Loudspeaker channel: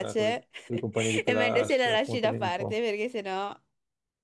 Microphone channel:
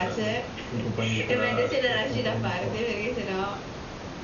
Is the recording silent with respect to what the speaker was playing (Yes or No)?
No